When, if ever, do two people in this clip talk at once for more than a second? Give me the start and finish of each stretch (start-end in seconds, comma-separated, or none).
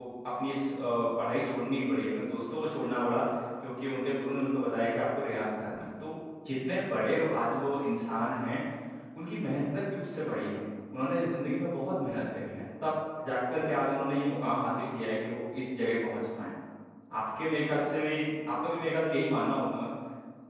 none